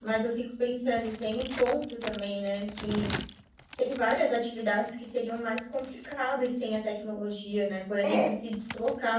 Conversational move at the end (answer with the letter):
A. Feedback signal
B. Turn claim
A